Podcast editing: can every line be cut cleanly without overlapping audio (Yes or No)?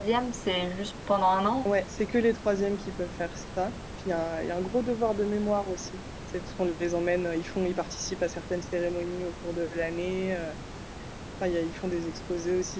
Yes